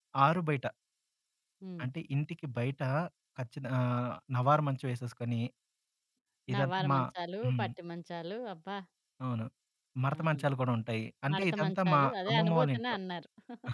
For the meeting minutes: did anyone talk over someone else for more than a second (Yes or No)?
Yes